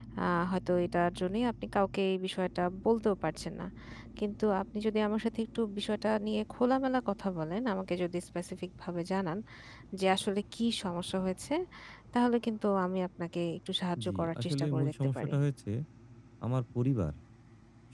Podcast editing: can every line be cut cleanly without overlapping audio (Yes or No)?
No